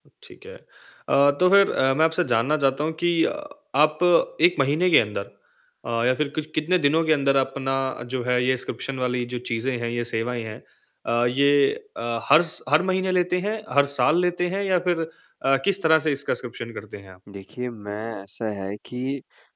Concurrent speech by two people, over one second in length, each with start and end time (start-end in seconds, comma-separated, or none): none